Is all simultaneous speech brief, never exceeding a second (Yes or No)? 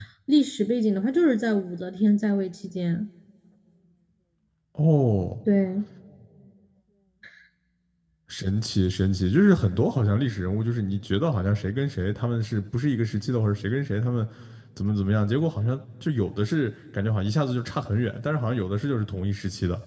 Yes